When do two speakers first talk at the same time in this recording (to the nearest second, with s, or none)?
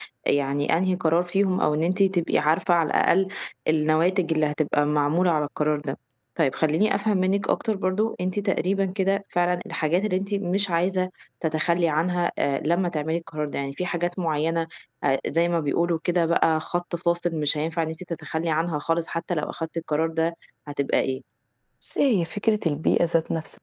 none